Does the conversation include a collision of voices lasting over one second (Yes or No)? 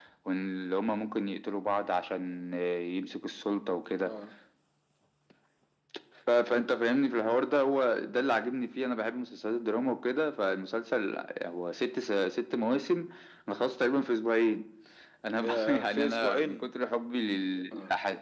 Yes